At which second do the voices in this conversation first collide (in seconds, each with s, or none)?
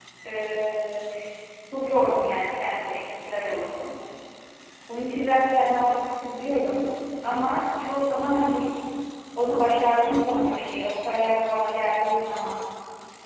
none